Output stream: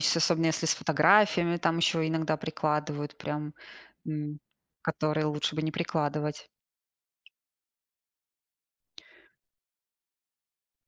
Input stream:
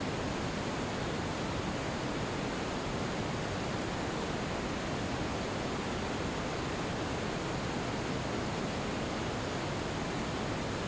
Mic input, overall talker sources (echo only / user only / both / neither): neither